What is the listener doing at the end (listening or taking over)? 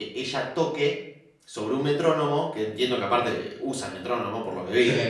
listening